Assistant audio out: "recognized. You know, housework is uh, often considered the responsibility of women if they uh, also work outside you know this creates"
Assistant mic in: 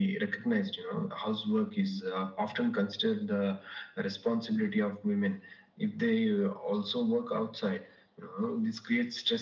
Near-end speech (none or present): none